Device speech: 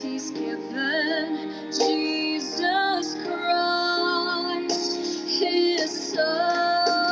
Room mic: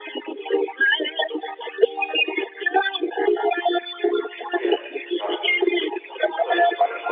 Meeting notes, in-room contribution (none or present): present